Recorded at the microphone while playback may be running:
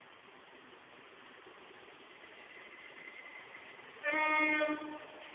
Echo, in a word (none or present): none